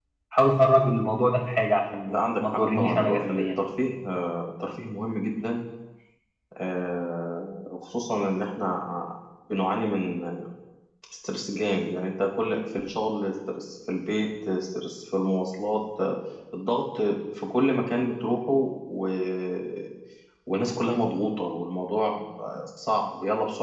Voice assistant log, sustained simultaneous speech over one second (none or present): present